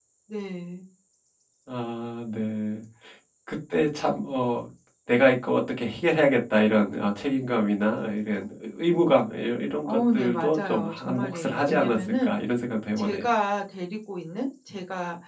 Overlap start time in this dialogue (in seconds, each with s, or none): 9.8 s